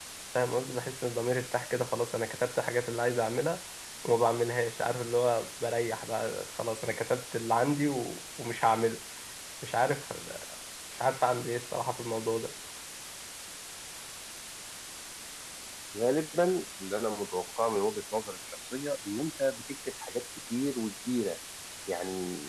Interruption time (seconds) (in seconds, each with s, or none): none